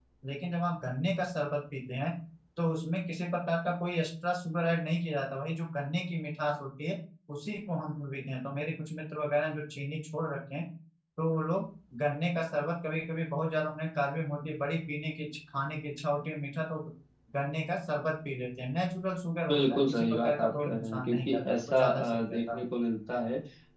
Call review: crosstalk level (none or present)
present